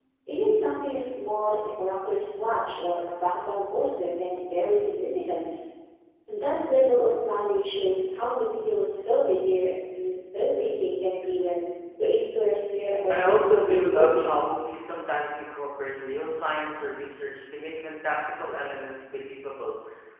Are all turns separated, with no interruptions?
No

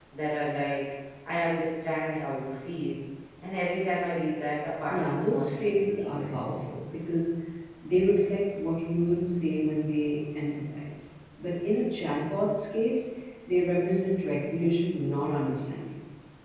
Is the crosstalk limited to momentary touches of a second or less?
No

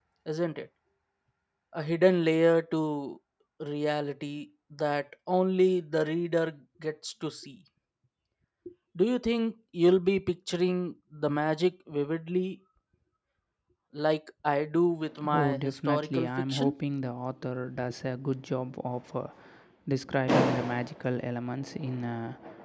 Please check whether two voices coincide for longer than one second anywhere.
Yes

